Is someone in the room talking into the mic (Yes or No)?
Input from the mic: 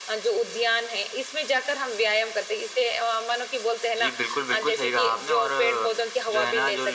No